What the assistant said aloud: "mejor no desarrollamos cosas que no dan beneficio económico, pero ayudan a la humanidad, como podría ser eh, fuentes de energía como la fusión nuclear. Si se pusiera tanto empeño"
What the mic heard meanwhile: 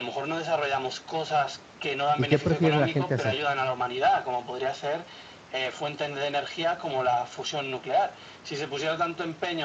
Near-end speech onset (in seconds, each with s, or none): 2.2 s